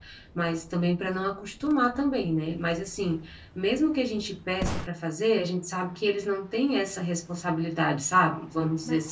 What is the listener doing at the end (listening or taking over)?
taking over